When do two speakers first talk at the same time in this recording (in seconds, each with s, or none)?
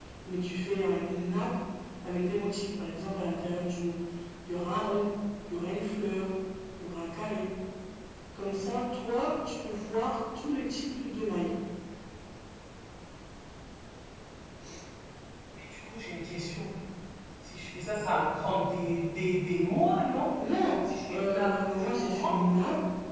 21.1 s